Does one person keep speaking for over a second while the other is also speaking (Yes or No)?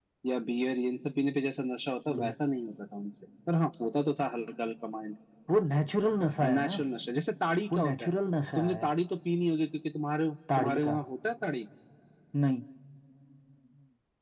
No